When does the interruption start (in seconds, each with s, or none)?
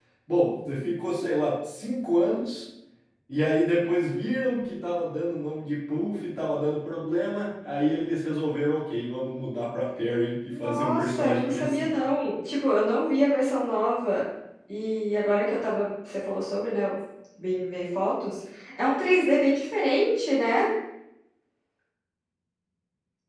10.5 s